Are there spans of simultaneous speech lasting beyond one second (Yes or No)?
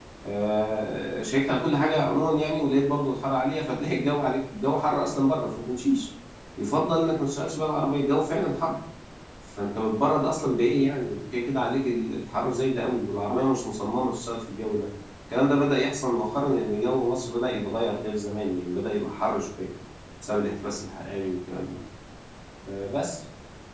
No